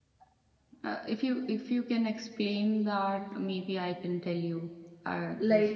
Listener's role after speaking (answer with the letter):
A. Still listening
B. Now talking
B